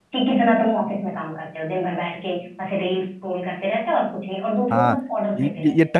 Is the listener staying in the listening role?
No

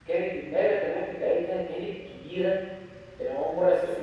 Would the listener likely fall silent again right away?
Yes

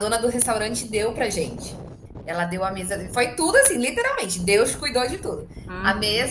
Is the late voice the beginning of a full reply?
No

